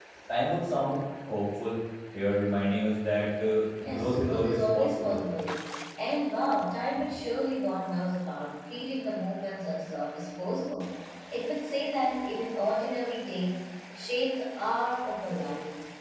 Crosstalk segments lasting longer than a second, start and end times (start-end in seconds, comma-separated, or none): 3.8-5.2